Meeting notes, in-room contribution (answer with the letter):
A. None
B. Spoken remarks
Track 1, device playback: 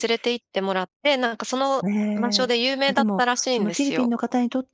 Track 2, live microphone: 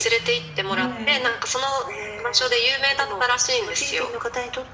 B